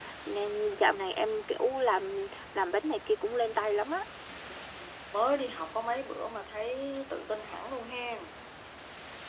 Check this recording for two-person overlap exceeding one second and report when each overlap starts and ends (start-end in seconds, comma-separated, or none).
none